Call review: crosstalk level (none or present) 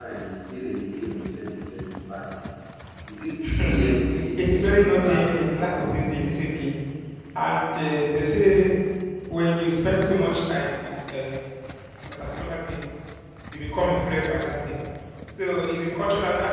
present